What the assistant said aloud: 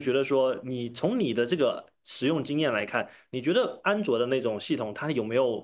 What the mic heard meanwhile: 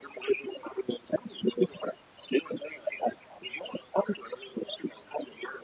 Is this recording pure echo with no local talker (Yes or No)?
Yes